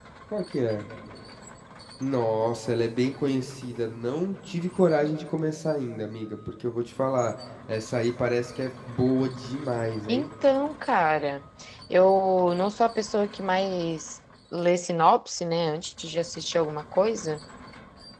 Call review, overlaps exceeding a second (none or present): none